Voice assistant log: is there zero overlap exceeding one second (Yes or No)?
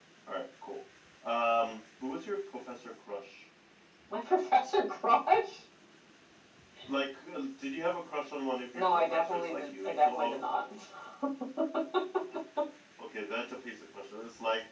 No